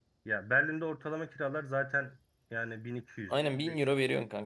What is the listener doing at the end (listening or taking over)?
taking over